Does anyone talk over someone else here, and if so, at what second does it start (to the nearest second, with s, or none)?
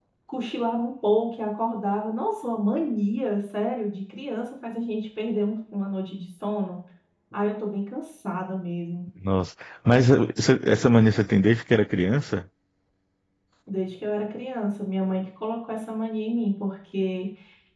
none